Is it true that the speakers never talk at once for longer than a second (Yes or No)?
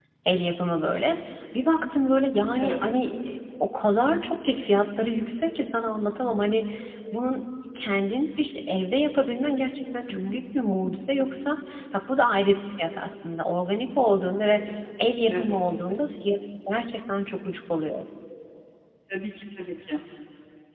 Yes